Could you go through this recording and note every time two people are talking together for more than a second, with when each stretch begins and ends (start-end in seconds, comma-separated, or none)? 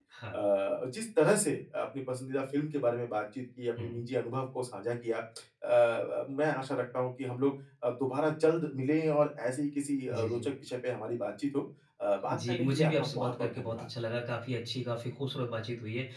12.3-13.8